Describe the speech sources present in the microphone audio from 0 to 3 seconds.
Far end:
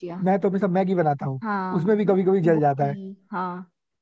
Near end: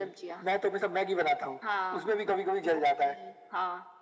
echo only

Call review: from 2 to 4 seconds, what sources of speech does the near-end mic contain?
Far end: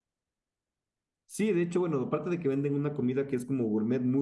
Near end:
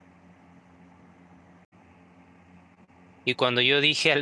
user only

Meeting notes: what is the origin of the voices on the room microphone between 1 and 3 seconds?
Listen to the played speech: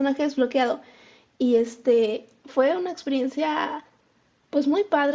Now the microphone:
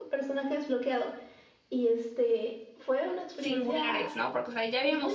echo only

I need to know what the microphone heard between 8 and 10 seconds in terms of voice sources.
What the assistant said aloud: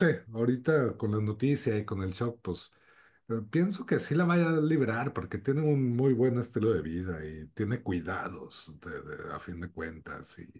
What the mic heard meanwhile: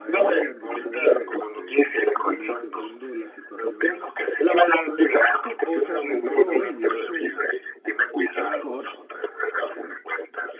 both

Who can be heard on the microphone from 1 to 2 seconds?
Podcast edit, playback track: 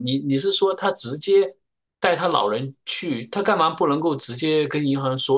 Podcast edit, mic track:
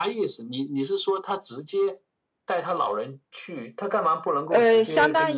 echo only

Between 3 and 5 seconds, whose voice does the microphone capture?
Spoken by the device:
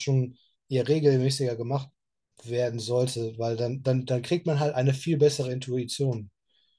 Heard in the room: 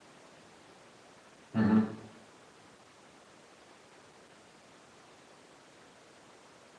neither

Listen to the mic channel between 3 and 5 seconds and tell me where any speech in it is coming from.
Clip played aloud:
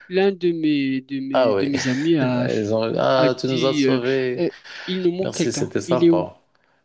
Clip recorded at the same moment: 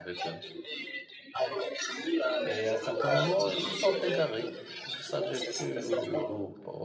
both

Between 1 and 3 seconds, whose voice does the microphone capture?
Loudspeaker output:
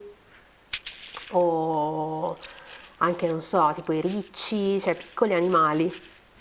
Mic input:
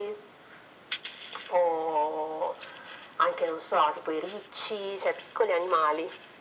echo only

